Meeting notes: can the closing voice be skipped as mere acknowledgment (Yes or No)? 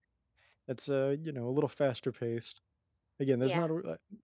Yes